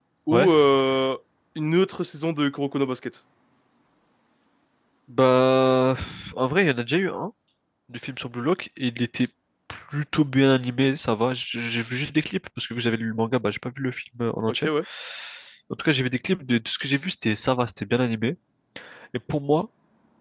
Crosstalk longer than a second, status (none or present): none